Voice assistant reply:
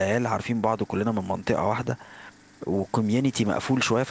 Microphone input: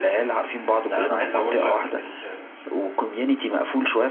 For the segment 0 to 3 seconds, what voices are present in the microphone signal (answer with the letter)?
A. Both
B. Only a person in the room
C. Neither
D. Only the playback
A